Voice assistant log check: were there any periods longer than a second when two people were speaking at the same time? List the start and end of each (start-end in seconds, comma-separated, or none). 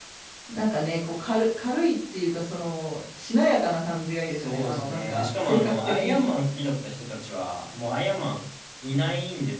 4.2-6.2